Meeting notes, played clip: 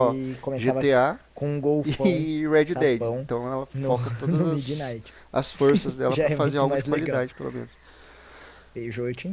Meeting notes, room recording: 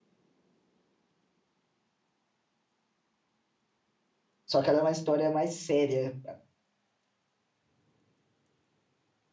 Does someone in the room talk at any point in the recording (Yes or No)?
Yes